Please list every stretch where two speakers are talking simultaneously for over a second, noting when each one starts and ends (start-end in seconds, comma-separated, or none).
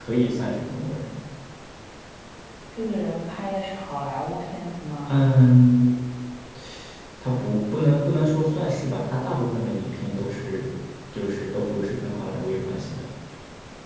none